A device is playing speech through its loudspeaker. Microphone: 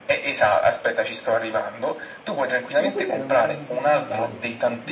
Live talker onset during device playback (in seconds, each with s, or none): 2.7 s